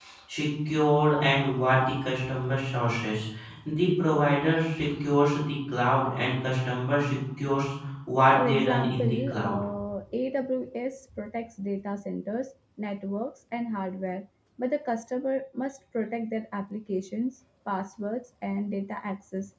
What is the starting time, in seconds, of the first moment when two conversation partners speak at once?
8.4 s

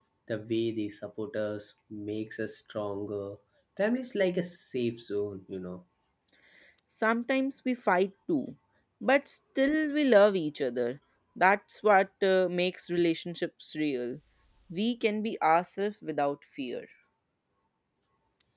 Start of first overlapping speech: none

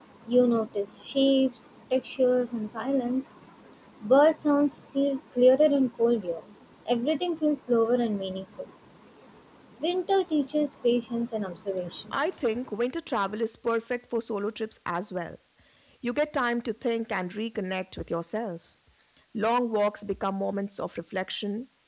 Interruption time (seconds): none

